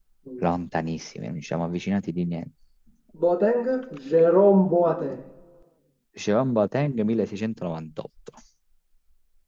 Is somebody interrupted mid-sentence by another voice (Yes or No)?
No